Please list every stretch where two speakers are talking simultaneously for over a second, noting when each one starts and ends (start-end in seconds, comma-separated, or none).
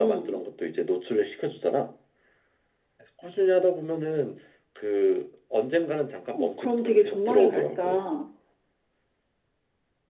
6.3-8.0